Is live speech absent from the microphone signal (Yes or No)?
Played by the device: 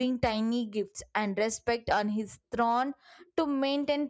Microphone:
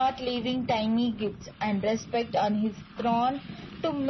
Yes